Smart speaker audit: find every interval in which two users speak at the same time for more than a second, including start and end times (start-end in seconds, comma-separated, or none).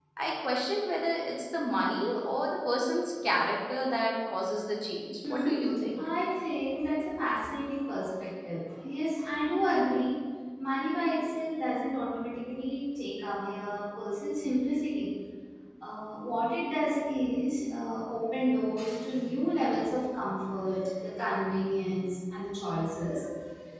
none